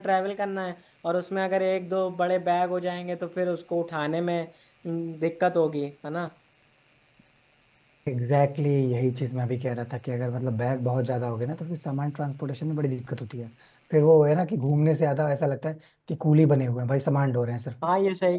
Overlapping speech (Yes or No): No